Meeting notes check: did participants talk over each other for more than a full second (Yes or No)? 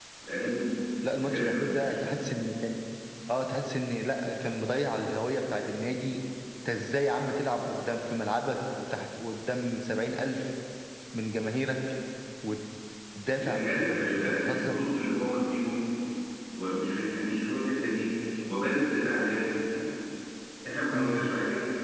Yes